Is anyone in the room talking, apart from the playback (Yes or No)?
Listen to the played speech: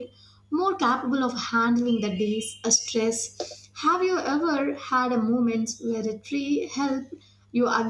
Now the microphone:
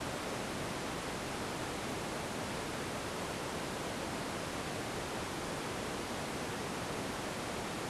No